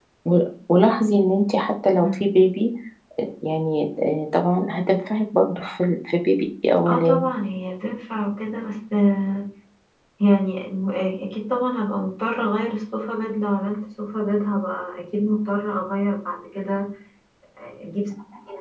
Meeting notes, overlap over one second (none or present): none